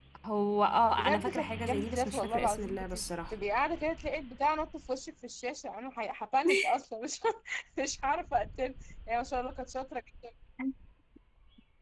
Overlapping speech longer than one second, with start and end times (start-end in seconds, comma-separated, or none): 1.0-2.9